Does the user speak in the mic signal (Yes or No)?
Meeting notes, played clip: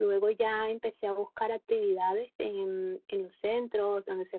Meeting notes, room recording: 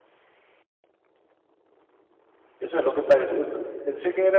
Yes